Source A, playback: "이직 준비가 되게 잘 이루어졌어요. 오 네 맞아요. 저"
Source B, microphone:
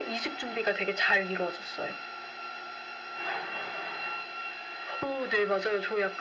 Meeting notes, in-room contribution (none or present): none